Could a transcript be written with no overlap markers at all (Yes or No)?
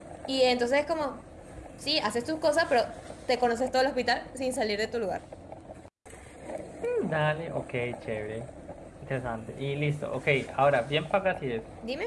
Yes